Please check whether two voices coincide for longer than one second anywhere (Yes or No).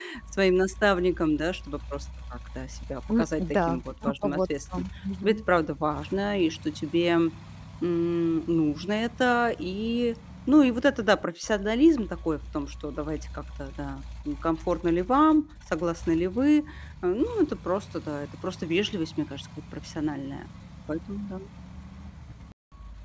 Yes